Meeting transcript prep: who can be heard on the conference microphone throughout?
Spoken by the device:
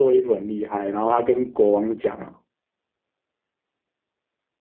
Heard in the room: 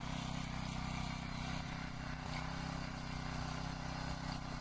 neither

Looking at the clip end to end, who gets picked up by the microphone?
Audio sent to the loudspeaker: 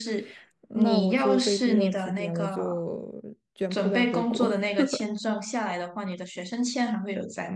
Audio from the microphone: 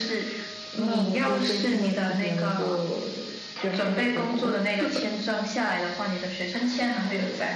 echo only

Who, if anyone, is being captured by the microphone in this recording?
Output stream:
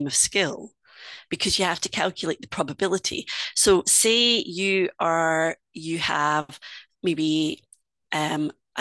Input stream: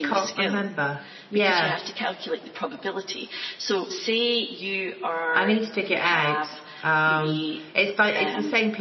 both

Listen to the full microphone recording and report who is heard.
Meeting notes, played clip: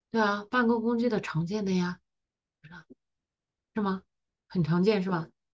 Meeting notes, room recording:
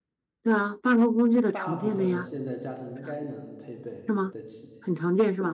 both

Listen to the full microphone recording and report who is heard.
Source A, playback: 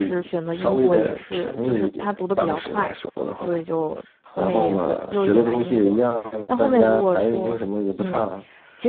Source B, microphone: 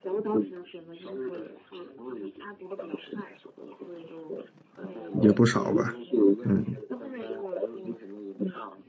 both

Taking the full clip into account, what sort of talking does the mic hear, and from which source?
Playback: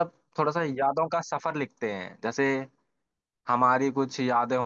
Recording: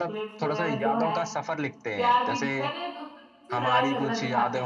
both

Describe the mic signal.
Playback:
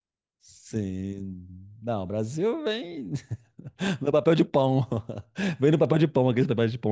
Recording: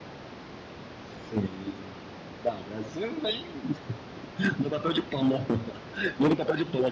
echo only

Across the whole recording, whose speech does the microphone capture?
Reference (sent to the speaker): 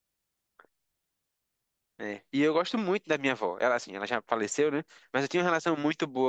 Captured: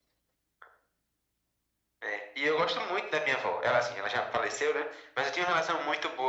echo only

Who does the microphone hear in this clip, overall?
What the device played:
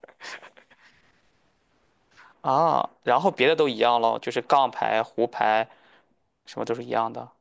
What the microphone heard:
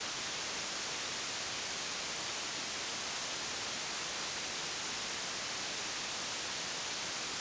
neither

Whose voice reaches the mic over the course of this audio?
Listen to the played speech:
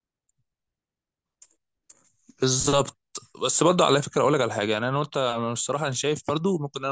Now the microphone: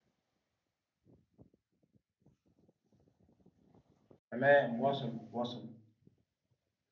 user only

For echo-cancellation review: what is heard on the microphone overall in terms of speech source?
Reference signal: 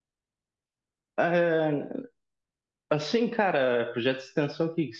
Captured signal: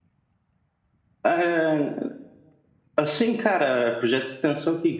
echo only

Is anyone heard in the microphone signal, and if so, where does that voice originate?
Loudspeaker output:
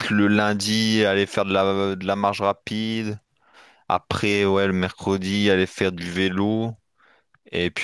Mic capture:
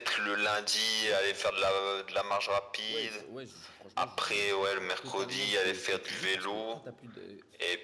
both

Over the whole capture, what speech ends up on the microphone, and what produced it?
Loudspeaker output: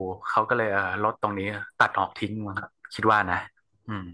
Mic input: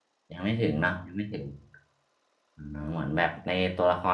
user only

